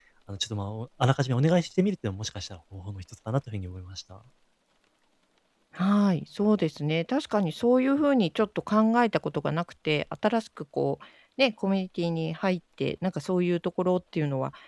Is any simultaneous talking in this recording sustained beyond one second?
No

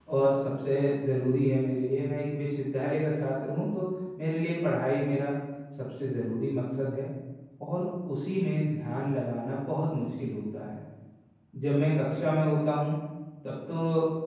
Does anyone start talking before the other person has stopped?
No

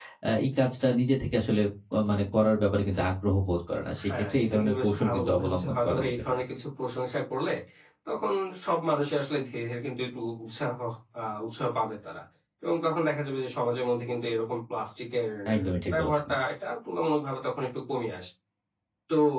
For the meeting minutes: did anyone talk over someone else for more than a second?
Yes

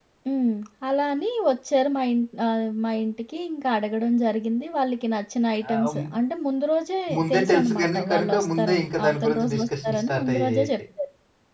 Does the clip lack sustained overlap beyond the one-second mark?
No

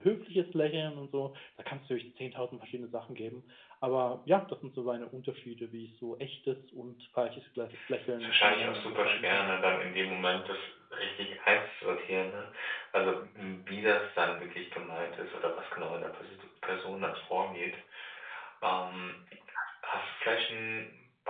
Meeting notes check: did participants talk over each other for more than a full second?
Yes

